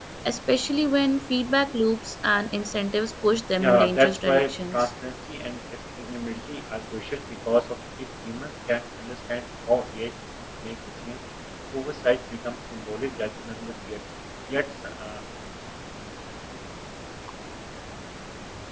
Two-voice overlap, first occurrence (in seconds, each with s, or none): 3.6 s